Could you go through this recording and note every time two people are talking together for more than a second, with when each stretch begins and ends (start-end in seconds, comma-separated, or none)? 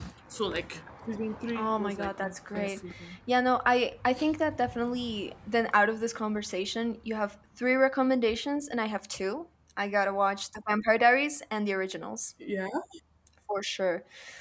1.5-2.8